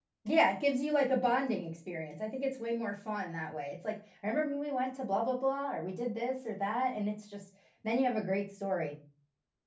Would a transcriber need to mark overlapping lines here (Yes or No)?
No